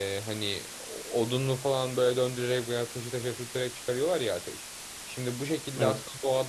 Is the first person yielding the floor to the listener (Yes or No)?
No